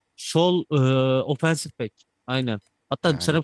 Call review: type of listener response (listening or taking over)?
listening